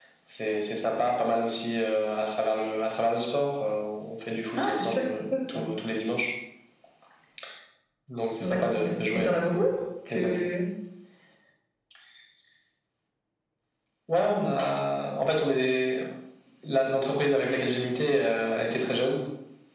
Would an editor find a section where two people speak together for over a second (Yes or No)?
Yes